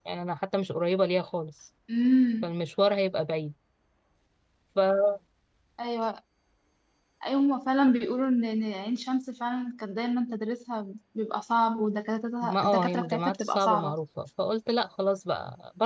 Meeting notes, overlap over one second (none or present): present